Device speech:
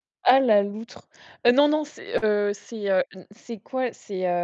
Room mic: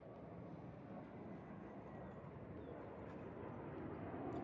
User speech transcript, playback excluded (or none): none